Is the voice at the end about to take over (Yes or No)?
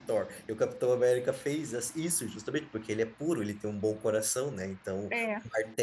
No